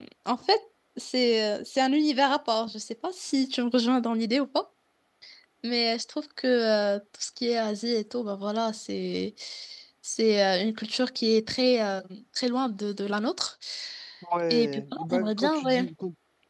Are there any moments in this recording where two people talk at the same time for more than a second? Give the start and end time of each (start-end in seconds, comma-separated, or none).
14.5-15.8